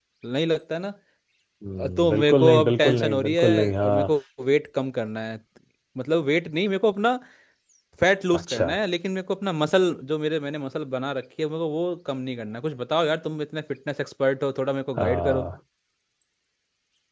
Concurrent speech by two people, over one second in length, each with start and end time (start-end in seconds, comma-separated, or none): 2.0-4.1